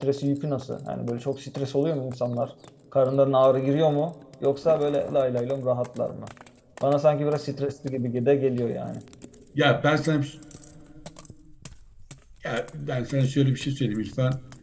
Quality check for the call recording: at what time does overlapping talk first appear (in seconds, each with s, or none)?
none